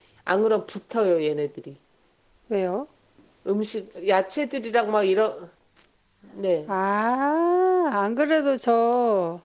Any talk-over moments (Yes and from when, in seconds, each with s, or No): No